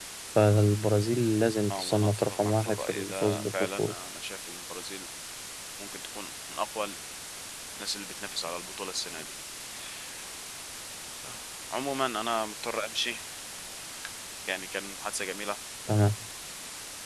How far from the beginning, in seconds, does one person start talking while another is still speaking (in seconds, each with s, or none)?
1.7 s